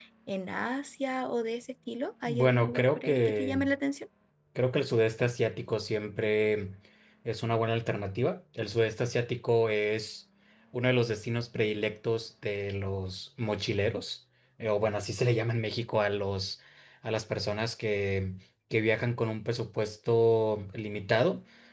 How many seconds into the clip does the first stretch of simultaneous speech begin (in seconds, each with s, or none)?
2.3 s